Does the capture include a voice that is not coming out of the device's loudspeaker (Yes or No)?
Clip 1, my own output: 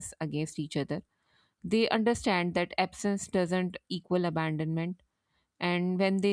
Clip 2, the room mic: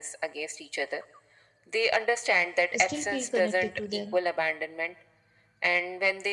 Yes